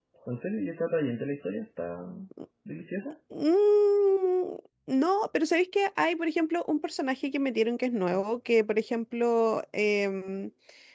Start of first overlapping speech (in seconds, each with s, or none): none